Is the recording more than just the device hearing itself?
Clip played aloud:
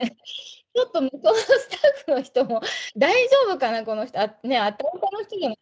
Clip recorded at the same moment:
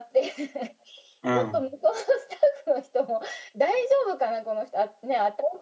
Yes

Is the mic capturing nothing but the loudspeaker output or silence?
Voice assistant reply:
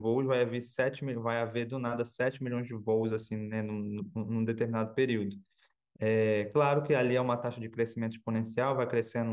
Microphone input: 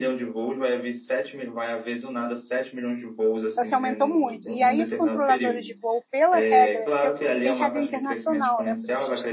No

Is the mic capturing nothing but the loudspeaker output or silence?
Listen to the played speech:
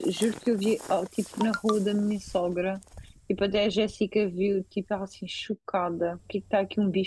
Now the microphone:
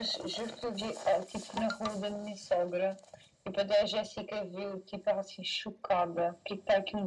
Yes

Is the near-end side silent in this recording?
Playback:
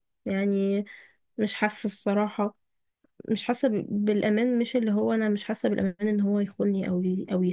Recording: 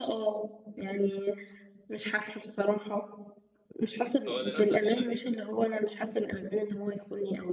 No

